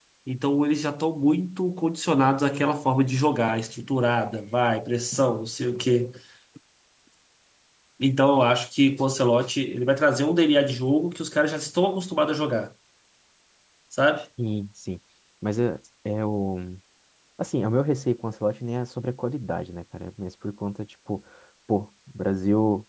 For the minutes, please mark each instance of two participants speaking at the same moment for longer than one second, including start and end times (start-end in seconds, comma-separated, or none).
none